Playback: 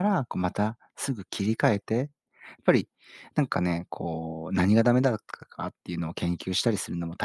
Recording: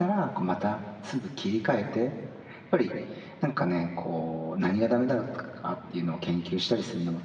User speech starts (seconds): none

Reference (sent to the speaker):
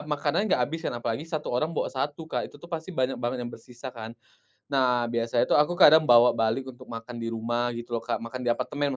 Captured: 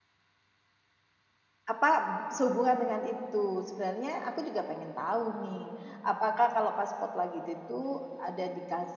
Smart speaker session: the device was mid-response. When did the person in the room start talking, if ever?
1.6 s

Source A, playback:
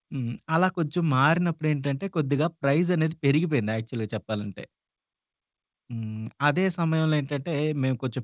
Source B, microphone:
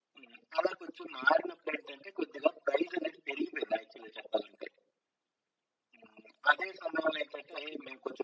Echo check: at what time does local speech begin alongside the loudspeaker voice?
none

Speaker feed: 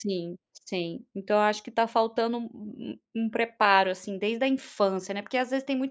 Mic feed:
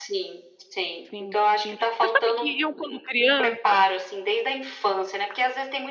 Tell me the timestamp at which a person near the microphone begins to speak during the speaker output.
1.0 s

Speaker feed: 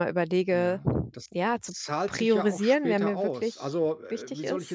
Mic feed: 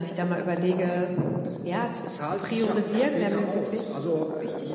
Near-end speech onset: none

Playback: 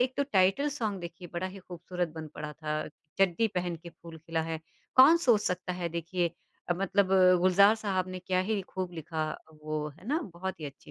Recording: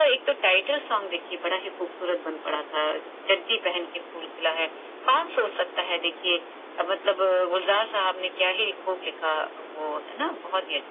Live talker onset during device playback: none

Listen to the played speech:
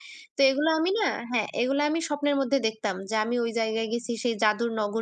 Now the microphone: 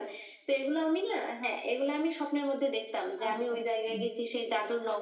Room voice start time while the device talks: 3.2 s

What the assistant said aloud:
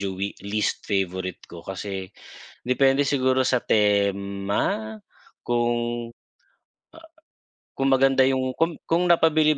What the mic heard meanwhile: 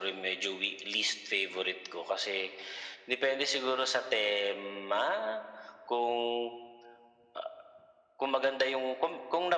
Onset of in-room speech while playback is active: none

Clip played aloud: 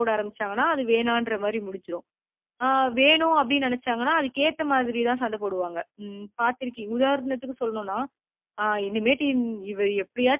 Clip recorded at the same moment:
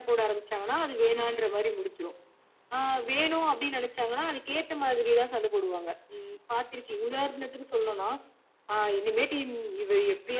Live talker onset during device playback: none

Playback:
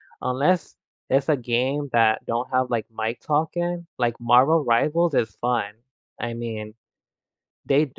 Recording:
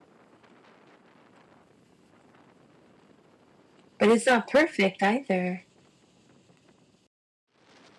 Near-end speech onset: 4.0 s

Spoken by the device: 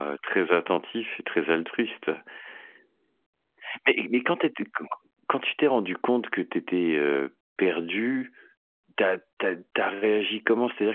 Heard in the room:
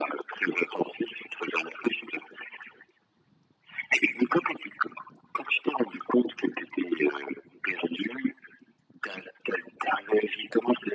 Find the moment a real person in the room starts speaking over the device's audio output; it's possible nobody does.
none

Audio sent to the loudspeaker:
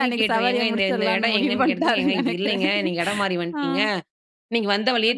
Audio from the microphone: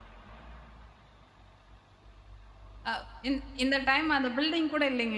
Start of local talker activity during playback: 2.9 s

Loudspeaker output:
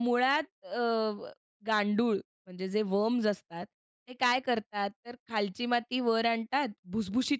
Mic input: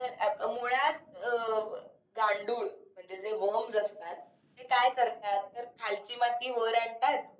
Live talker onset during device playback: none

